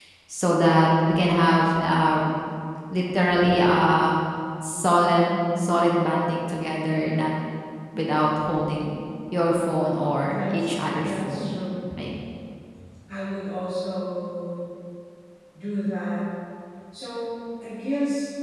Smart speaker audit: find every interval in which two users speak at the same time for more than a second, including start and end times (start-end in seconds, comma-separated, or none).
10.2-11.5